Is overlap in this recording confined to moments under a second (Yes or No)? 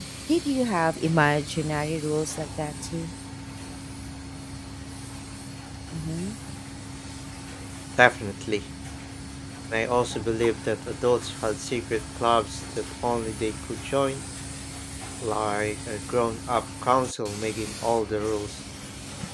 Yes